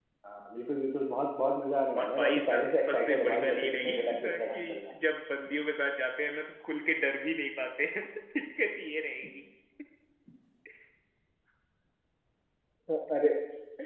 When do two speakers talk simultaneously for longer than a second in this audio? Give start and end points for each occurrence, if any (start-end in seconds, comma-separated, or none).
2.0-4.9